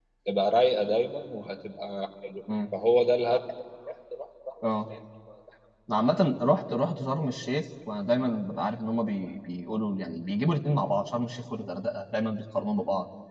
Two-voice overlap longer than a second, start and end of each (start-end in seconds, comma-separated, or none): none